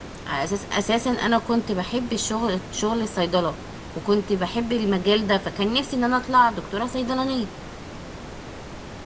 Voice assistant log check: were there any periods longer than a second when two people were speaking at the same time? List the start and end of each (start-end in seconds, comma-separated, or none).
none